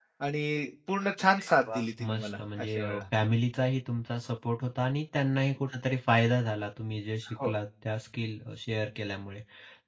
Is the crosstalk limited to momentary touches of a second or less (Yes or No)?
No